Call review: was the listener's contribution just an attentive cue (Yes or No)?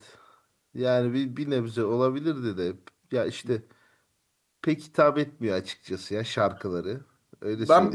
No